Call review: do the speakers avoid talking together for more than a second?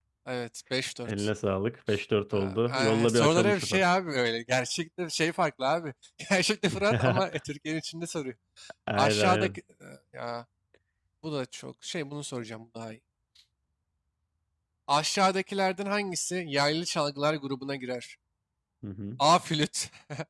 No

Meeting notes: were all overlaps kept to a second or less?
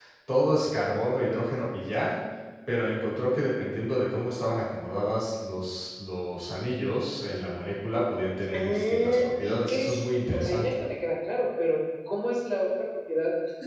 No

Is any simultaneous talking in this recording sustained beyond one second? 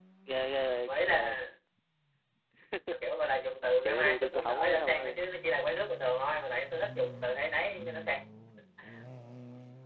Yes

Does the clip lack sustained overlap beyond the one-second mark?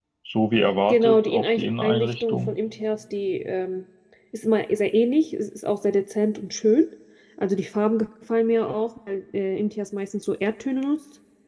No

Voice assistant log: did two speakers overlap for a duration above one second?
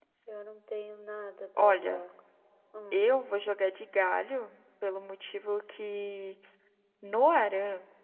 No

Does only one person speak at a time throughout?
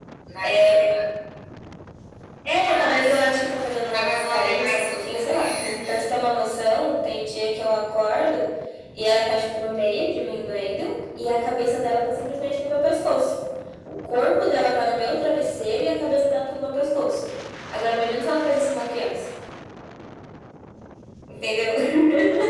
No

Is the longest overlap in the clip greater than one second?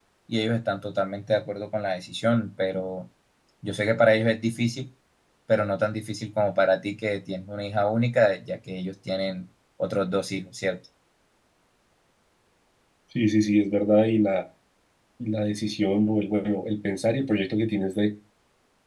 No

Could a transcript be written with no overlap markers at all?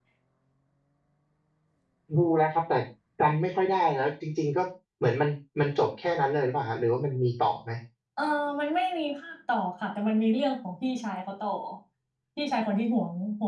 Yes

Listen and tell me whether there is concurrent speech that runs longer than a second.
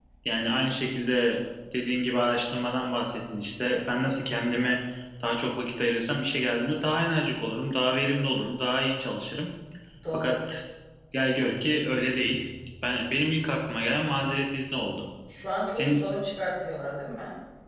No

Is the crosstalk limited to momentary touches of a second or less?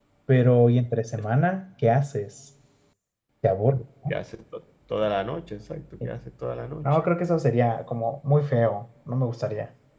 Yes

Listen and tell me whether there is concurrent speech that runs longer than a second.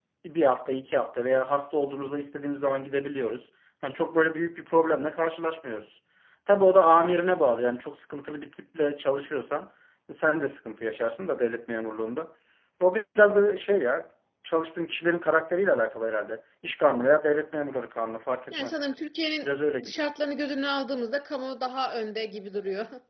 No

